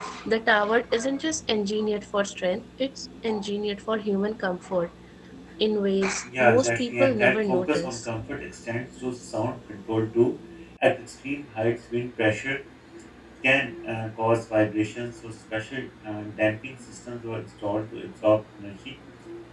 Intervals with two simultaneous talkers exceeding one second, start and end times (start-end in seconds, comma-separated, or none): 6.2-8.0